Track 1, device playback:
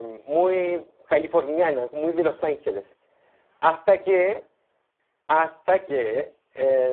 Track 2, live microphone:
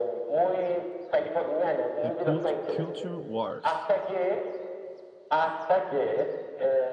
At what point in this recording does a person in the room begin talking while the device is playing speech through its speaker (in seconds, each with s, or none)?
2.0 s